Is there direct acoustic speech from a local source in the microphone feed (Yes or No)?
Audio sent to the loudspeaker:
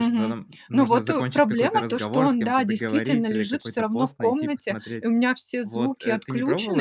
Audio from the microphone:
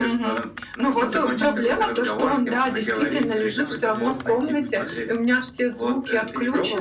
Yes